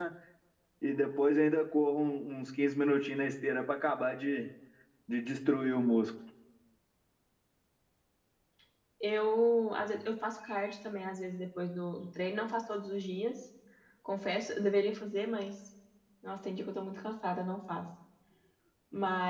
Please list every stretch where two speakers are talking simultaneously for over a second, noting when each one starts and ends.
none

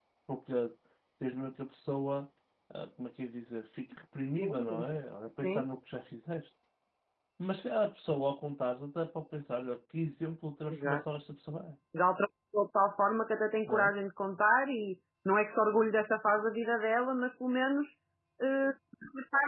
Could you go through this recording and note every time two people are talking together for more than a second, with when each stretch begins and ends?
none

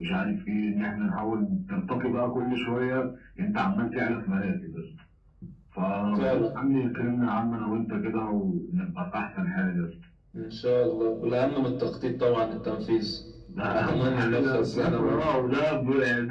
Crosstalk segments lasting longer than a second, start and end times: 13.7-15.4

